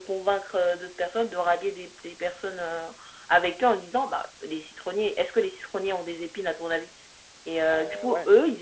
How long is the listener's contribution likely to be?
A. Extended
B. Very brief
B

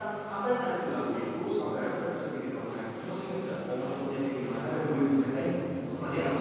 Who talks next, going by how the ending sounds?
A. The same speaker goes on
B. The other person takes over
B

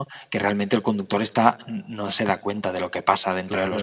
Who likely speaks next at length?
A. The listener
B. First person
A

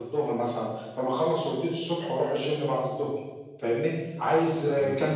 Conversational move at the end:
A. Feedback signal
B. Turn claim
A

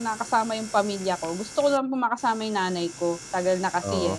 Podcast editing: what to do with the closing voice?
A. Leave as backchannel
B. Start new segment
A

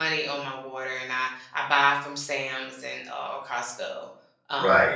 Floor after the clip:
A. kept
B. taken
B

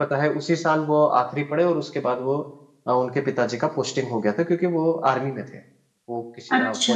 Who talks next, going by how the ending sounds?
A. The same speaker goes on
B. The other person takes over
A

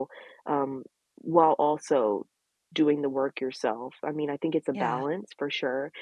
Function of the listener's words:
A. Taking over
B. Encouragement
B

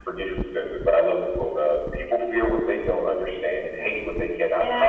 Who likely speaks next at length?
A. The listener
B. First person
A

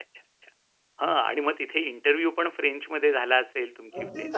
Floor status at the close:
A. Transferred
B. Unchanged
A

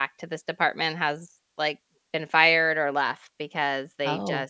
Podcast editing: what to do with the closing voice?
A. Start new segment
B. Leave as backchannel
B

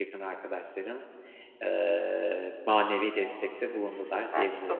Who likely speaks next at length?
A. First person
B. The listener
B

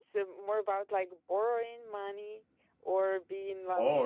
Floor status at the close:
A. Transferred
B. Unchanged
A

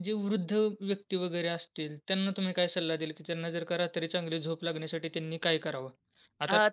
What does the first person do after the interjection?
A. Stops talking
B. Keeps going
A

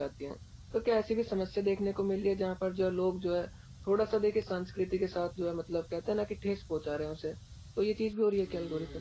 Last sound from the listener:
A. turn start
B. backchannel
A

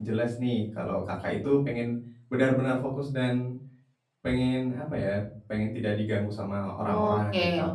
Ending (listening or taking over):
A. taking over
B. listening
A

